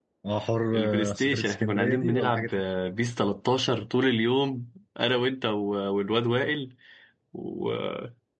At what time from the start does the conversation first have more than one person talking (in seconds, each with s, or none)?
0.7 s